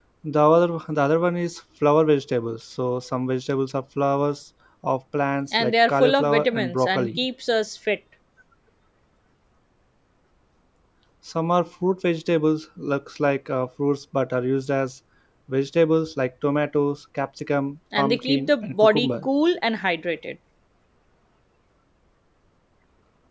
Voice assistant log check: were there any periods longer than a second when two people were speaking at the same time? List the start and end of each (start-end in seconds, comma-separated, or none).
5.6-7.2, 18.0-19.3